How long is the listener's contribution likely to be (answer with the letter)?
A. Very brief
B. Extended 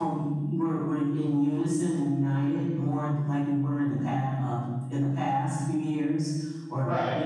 A